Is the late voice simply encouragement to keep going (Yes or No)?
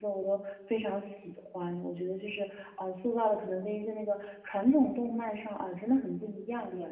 No